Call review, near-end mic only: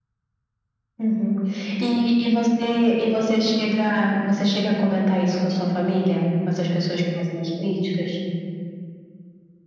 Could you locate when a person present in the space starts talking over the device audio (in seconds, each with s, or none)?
none